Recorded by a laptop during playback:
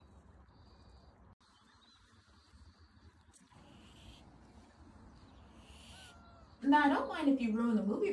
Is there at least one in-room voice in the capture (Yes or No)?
Yes